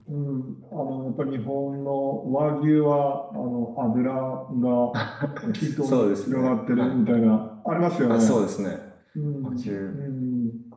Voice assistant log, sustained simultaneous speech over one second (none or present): present